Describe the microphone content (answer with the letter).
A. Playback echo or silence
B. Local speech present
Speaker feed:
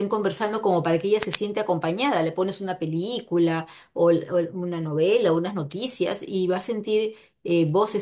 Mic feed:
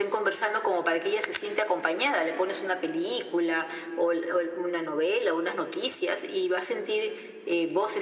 A